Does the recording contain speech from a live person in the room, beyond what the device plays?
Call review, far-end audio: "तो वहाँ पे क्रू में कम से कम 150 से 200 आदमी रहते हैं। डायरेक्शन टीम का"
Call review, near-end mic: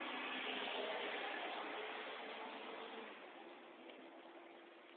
No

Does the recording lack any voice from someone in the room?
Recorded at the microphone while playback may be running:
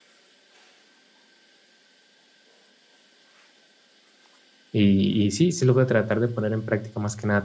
No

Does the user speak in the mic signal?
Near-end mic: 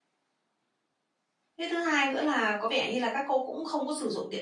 Yes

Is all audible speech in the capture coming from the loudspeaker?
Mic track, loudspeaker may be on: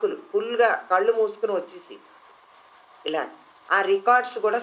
Yes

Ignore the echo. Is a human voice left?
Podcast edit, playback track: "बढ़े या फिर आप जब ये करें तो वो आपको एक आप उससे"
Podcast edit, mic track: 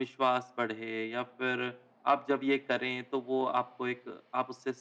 No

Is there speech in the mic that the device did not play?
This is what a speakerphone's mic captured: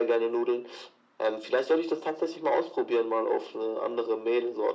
No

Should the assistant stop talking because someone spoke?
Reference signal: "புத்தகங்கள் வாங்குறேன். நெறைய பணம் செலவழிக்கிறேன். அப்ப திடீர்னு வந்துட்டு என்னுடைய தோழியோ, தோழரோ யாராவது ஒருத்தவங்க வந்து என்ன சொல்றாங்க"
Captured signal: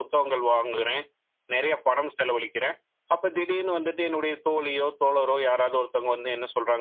No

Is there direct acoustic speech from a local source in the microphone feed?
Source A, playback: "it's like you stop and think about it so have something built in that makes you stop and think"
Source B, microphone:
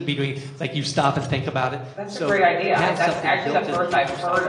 Yes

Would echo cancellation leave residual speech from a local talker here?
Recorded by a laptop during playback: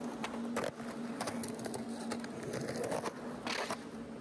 No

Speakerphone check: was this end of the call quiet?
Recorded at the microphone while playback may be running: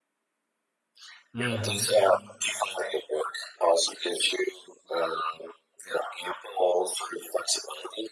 No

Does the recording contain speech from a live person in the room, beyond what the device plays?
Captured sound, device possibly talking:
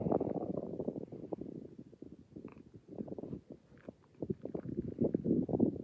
No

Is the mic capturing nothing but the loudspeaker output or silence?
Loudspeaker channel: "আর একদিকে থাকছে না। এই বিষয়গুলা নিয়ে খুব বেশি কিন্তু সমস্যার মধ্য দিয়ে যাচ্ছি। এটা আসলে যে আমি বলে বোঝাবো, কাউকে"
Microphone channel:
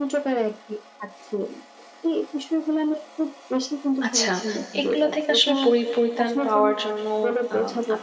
No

